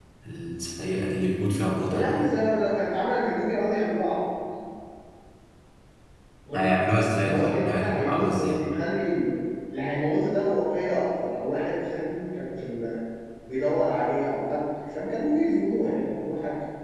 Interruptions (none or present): present